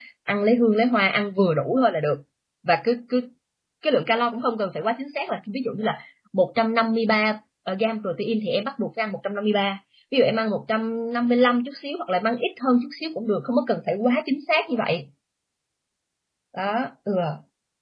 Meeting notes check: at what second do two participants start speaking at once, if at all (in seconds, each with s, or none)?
none